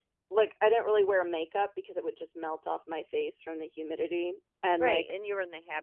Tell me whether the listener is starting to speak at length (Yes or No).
Yes